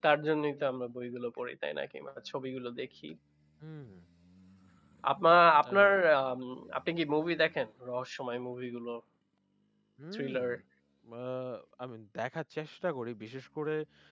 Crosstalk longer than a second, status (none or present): none